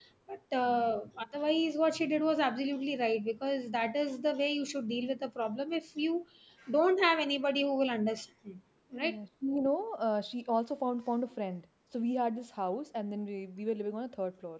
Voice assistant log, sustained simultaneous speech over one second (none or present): none